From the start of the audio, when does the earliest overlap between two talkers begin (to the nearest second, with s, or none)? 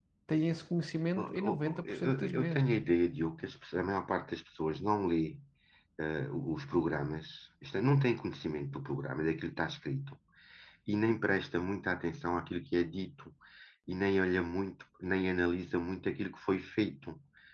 1 s